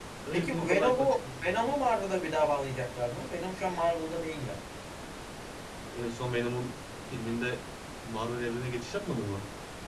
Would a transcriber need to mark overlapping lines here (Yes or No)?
Yes